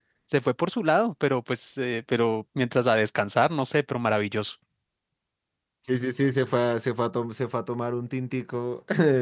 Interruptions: none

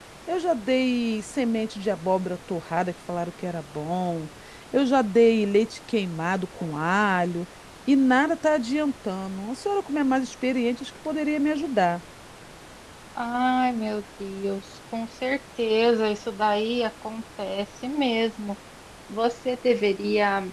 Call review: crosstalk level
none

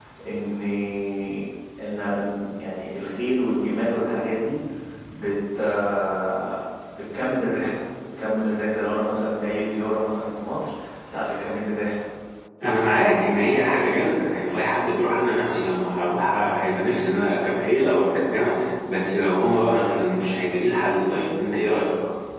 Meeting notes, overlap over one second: none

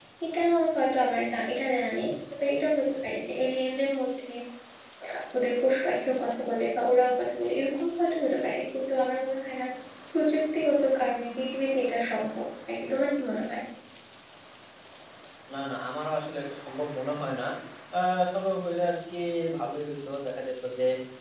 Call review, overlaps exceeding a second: none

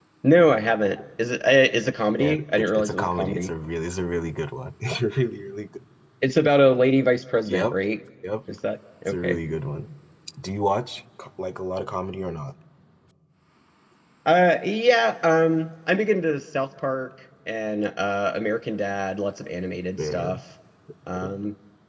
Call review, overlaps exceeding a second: present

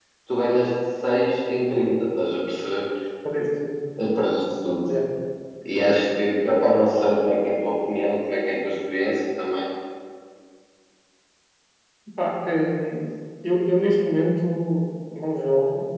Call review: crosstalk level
none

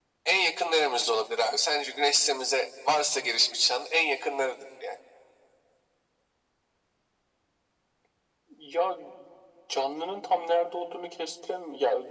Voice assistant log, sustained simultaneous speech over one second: none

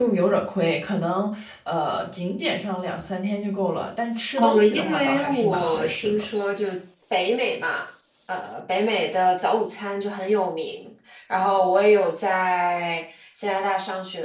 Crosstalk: present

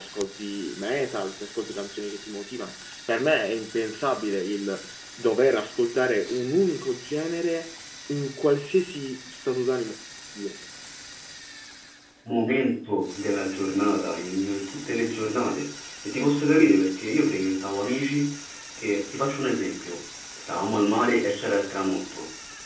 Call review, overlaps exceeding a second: none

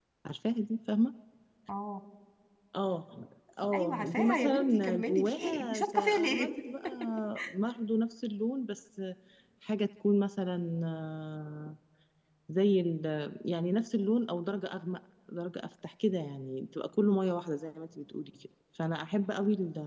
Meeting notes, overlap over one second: present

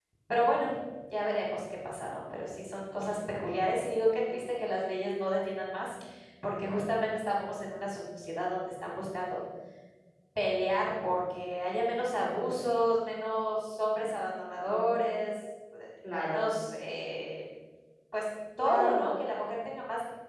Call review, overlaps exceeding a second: none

